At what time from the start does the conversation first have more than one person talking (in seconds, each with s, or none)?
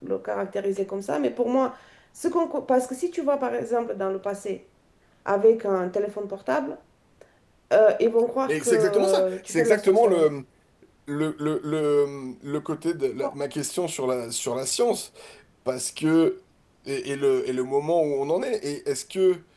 8.5 s